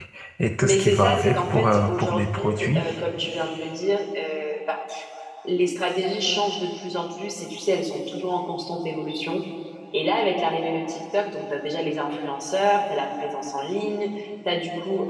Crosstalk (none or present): present